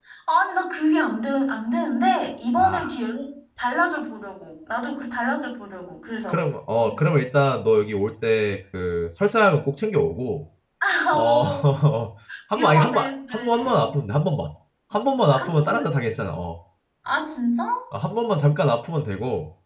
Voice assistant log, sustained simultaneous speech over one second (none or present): present